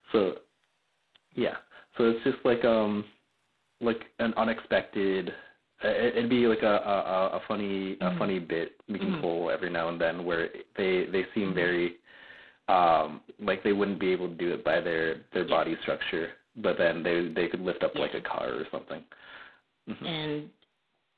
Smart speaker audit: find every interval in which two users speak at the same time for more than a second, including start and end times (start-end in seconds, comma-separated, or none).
none